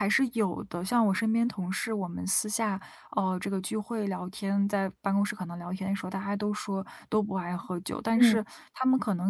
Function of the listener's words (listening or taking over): listening